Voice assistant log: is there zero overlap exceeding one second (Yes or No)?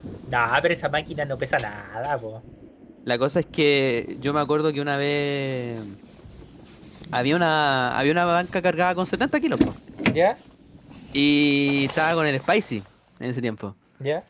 Yes